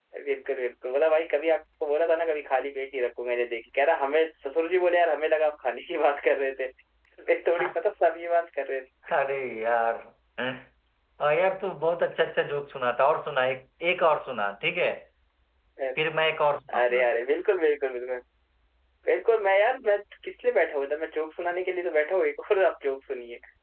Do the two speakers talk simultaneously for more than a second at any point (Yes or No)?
No